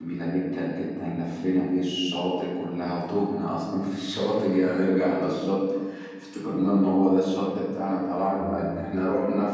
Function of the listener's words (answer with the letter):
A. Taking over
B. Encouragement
B